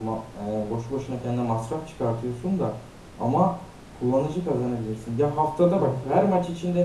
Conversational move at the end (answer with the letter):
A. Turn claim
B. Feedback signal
B